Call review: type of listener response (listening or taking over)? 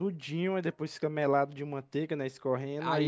taking over